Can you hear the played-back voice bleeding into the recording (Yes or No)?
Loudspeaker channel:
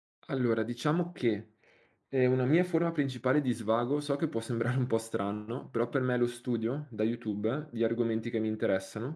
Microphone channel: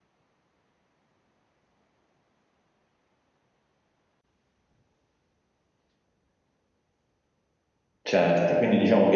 No